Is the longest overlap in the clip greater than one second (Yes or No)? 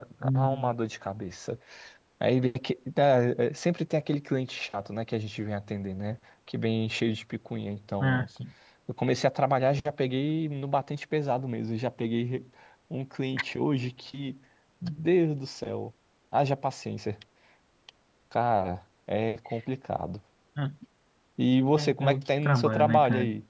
Yes